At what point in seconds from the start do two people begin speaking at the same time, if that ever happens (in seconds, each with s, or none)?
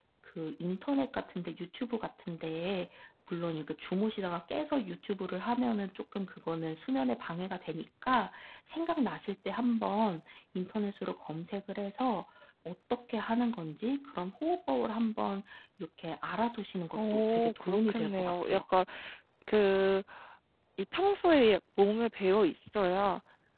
17.0 s